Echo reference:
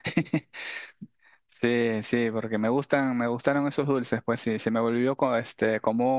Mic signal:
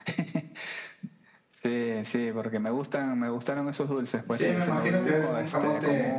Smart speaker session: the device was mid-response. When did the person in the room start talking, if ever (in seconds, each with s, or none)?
4.3 s